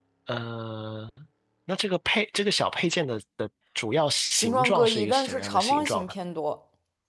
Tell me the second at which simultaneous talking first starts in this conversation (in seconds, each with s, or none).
4.3 s